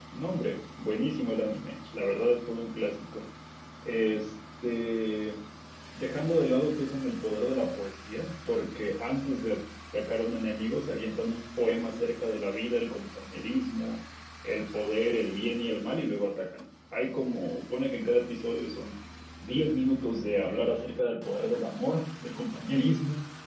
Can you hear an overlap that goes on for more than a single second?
No

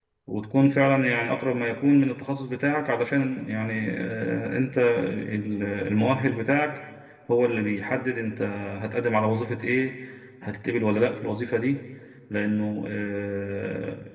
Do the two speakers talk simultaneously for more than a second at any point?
No

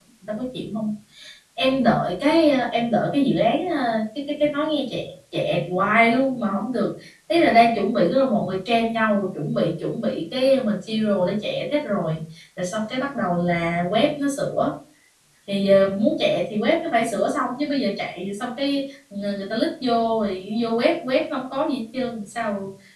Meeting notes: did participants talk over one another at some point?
No

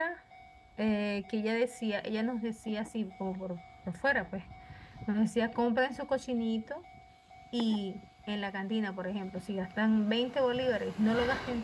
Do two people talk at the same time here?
No

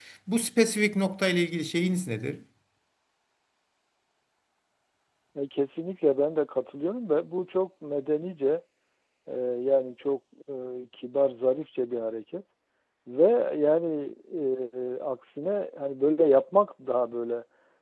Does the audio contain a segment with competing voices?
No

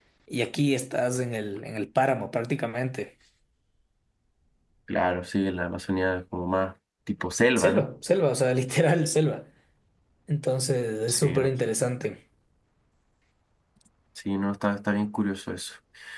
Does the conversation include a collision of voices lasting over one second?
No

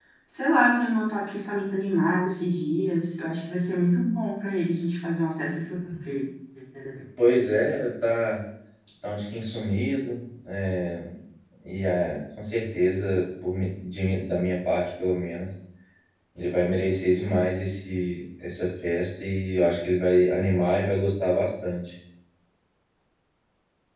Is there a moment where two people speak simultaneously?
No

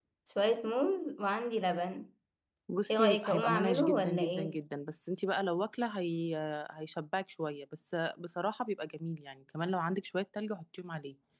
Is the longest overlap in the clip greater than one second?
Yes, from 2.9 s

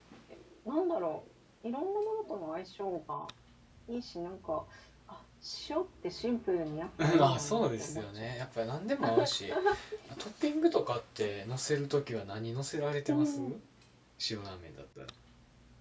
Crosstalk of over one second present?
Yes, from 7.0 s

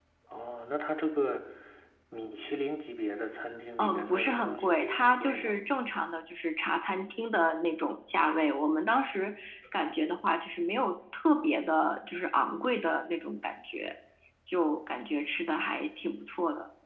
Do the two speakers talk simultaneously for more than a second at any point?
Yes, from 3.8 s

